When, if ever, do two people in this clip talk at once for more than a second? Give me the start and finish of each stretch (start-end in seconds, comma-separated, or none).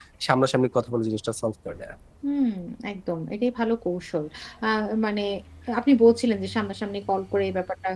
none